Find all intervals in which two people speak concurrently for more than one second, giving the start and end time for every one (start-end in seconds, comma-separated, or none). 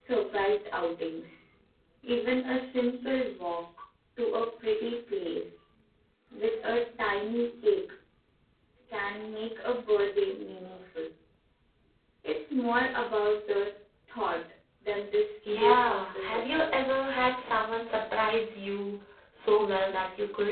15.6-16.8